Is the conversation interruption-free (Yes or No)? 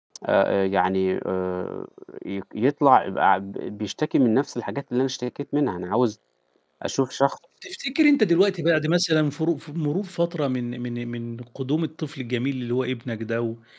Yes